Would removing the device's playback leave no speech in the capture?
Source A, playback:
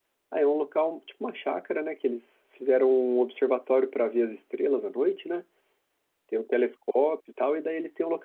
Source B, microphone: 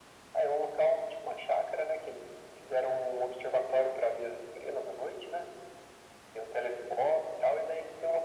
Yes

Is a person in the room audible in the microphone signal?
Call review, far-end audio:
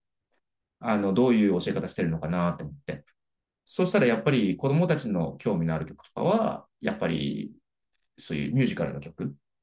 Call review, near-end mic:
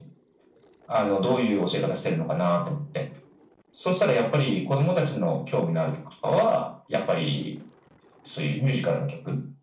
No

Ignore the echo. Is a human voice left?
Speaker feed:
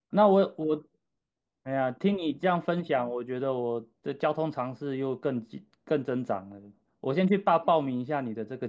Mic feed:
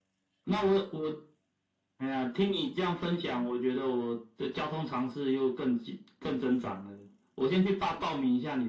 No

